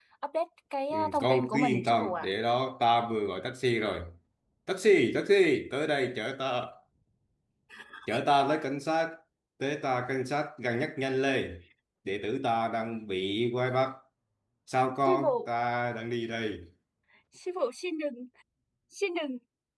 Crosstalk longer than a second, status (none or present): present